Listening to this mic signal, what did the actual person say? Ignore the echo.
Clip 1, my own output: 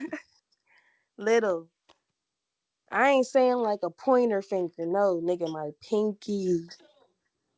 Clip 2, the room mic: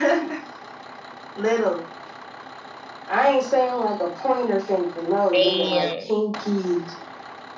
Damn,

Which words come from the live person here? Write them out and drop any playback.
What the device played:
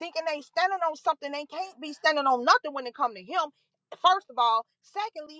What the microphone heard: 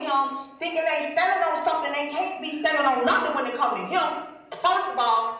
none

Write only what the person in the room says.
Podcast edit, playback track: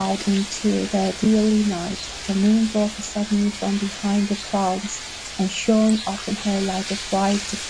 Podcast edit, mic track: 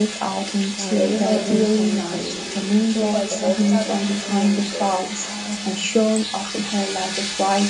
아, 여기서는 저는 그, 주호가 이제 머리 자른 부분이었는데, 아,

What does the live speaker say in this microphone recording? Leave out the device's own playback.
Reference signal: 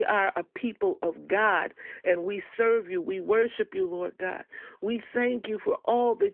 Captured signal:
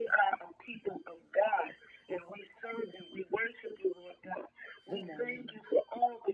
Good morning.

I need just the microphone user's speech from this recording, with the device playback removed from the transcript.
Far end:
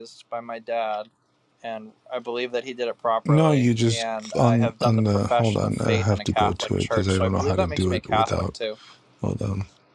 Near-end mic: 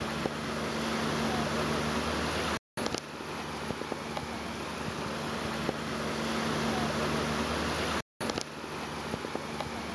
none

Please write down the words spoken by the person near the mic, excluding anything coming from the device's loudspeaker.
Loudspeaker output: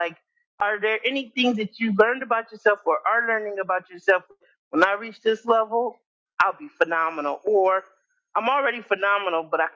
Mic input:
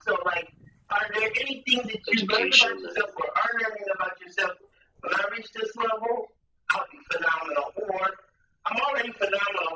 education and

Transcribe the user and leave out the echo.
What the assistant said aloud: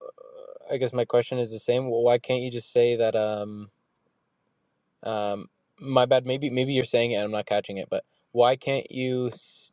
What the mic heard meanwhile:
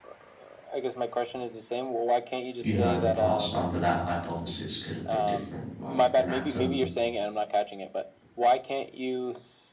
you know the past under that hypothesis could have been different like an atom

